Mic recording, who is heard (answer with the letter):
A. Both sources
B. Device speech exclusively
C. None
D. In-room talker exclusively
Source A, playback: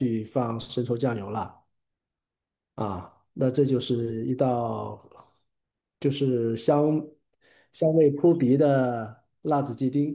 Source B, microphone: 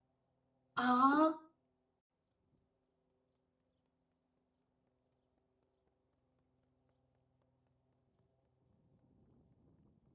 D